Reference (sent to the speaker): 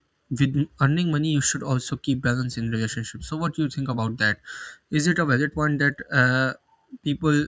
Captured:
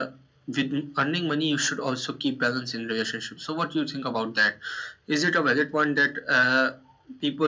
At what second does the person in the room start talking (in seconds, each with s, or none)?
none